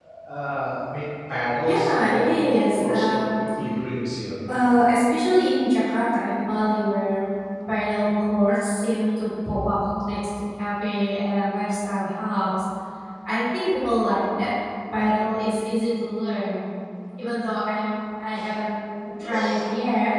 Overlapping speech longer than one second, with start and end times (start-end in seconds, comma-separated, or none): 1.6-3.2